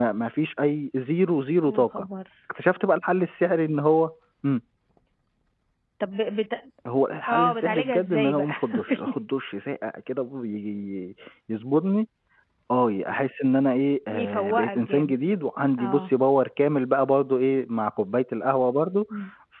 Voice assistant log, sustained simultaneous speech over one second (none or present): present